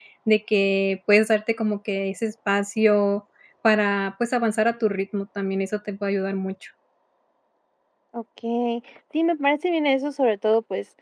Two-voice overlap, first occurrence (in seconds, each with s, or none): none